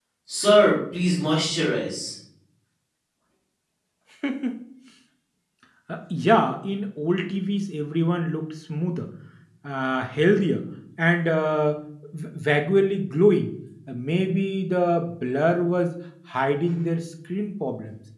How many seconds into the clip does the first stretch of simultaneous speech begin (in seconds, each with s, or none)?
none